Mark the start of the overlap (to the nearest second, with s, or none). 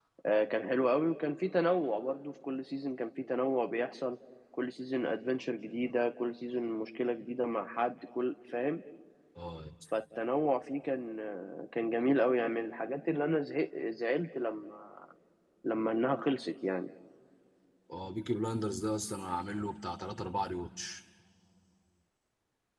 none